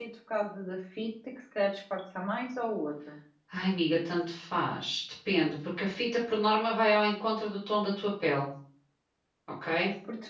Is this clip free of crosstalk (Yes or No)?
Yes